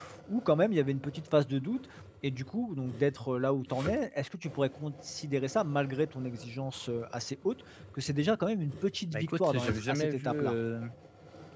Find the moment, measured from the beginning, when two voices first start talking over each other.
9.1 s

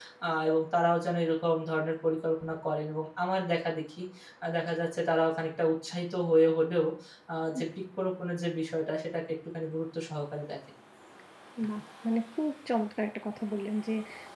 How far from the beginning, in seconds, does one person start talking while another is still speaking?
none

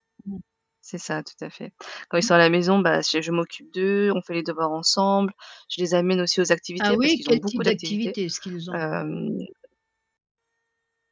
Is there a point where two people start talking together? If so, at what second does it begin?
6.8 s

